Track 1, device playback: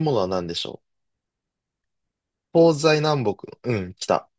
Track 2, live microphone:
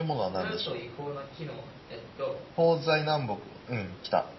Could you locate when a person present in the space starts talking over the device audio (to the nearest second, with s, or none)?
0 s